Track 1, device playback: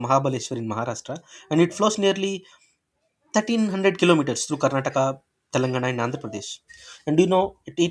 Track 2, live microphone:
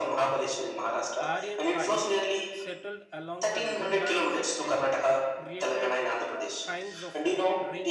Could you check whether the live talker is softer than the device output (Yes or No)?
Yes